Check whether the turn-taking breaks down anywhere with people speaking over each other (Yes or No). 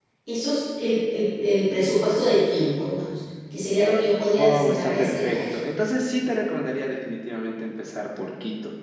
Yes